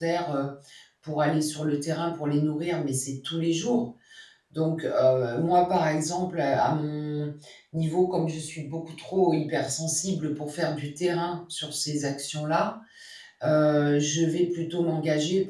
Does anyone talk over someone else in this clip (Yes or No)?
No